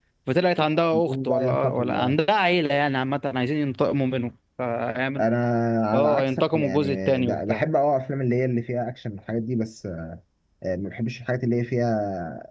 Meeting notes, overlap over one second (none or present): present